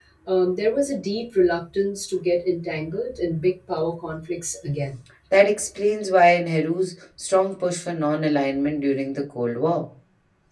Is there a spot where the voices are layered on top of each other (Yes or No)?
No